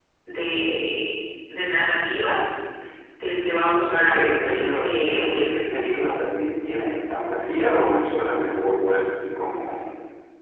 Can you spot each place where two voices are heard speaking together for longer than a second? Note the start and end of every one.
3.8-5.6

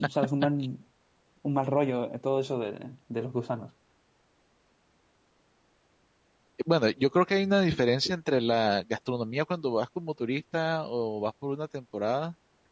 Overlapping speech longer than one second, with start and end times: none

